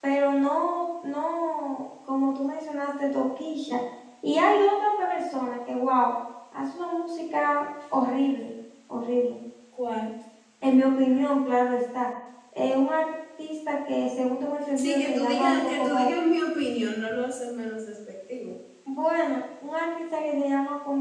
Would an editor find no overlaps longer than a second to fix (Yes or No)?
No